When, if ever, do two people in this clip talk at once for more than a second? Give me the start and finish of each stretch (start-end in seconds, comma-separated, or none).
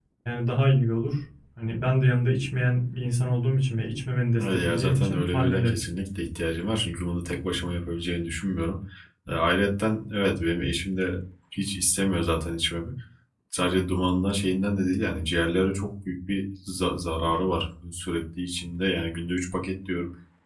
4.4-5.9